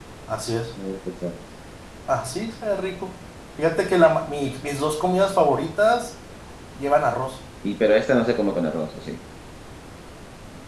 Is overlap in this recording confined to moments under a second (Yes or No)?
Yes